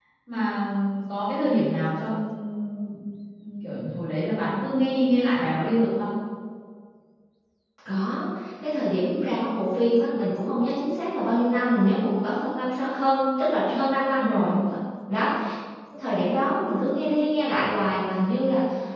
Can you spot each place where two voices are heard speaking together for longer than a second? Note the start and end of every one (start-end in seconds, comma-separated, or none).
none